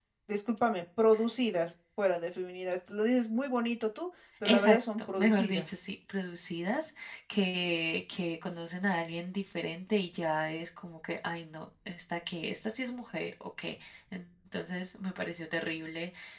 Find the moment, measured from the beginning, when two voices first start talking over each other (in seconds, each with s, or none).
4.5 s